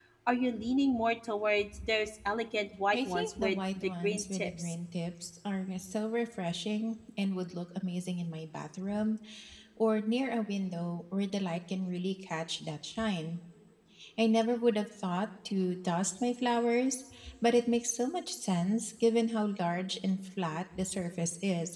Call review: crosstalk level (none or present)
present